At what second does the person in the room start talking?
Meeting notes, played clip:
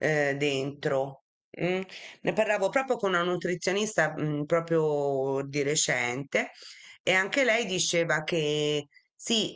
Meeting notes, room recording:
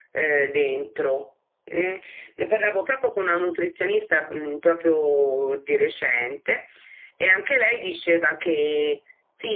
none

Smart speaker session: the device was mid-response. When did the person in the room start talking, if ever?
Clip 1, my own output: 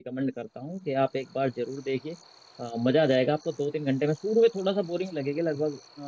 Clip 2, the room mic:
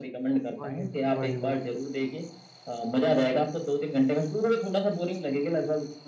0.6 s

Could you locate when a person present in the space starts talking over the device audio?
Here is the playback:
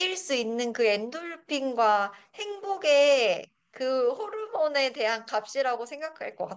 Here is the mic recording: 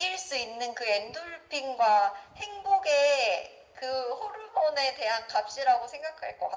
none

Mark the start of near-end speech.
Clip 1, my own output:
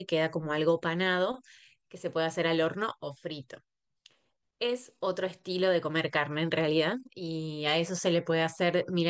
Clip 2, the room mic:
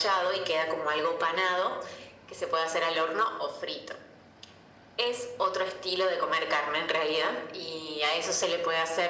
none

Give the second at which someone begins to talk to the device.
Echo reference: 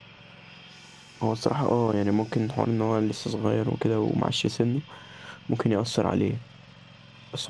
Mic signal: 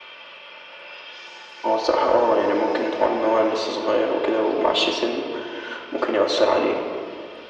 none

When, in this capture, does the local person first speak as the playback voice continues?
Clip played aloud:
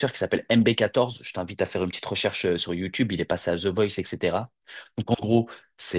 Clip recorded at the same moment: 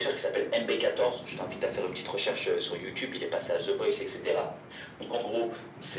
none

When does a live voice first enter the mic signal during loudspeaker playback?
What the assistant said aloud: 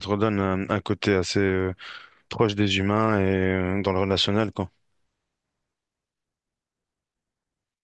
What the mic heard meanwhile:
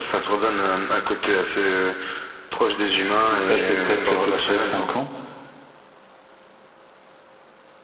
3.3 s

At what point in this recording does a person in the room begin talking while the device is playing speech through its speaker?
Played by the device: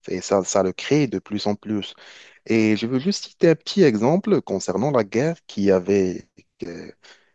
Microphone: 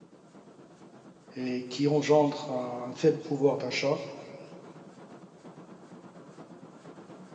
1.4 s

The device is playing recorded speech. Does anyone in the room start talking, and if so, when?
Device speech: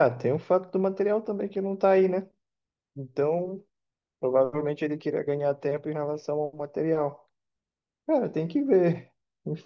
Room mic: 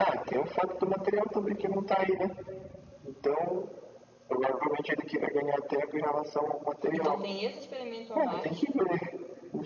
6.9 s

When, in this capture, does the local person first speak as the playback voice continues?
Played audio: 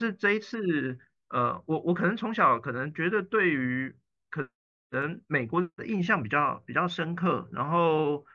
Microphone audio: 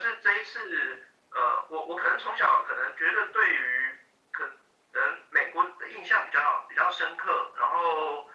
none

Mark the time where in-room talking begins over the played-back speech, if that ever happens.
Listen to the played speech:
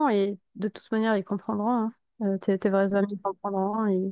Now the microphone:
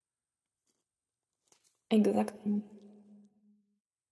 1.9 s

